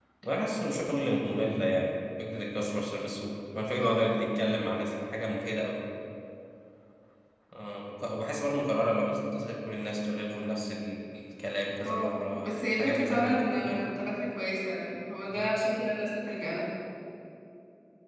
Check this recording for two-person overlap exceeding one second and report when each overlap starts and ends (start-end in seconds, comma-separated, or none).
11.9-13.6